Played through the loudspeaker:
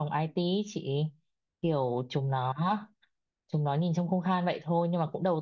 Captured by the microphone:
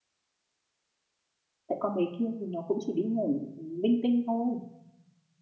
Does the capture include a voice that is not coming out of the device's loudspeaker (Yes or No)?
Yes